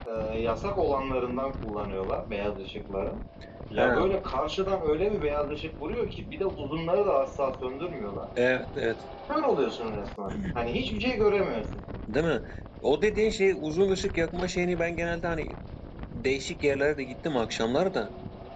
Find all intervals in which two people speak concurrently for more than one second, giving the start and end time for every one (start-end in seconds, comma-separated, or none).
none